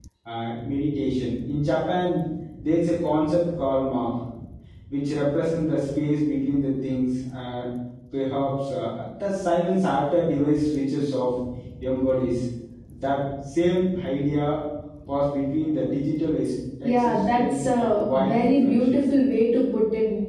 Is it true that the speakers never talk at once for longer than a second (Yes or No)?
No